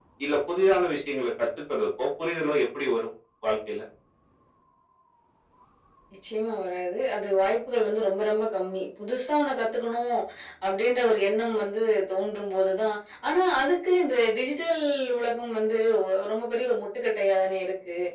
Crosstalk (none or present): none